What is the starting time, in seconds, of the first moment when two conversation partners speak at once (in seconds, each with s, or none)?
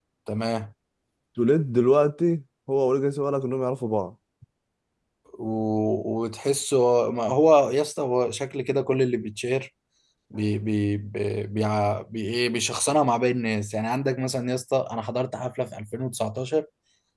none